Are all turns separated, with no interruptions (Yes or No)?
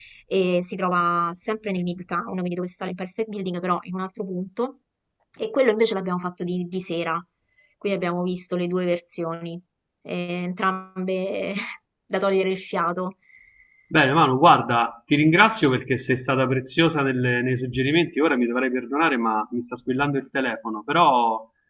Yes